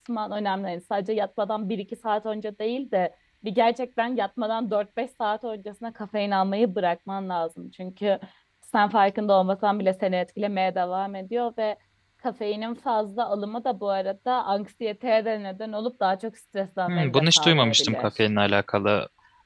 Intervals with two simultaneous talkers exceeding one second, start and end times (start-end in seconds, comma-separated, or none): 16.9-18.1